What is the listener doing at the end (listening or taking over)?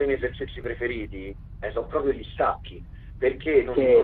listening